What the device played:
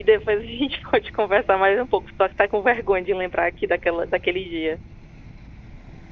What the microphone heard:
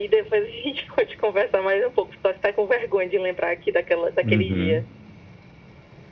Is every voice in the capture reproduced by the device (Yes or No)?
No